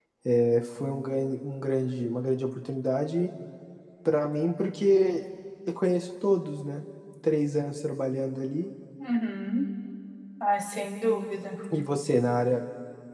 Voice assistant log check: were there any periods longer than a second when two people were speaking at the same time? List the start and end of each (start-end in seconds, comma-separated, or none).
none